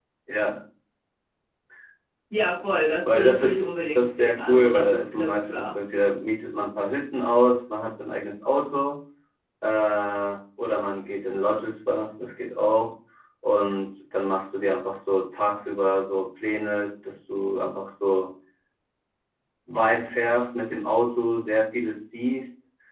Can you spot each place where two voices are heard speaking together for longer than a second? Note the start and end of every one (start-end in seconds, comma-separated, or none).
3.0-5.8